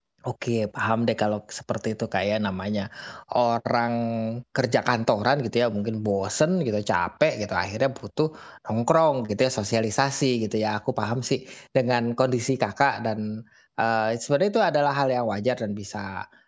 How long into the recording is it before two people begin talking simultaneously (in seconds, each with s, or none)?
none